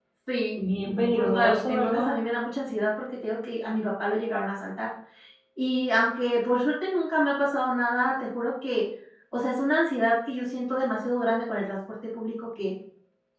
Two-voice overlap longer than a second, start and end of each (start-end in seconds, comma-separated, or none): 0.6-2.2